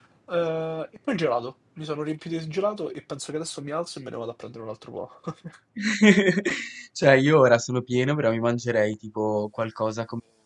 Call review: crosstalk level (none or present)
none